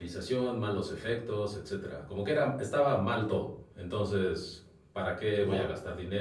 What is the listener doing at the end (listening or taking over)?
listening